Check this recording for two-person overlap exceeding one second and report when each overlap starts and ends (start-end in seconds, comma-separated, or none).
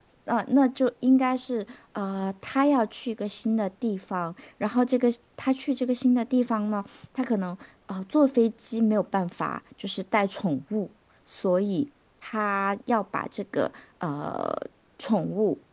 none